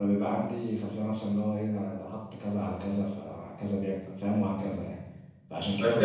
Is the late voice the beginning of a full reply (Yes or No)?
Yes